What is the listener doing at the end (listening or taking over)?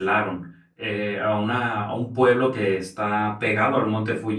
listening